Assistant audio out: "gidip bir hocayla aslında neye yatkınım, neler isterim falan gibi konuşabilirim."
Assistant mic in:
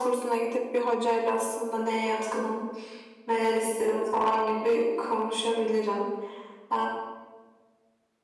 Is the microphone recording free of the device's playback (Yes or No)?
No